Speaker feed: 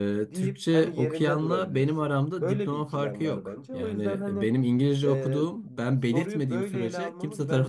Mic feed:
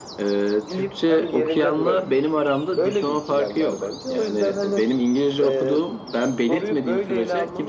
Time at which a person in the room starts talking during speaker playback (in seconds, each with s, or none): none